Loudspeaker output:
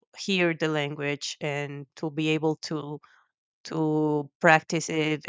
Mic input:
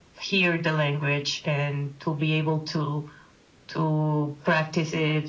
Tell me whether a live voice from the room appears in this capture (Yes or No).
No